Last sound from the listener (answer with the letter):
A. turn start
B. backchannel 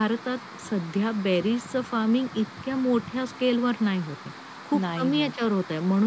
B